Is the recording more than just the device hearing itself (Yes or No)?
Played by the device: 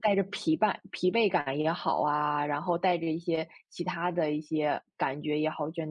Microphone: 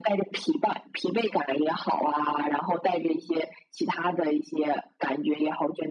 No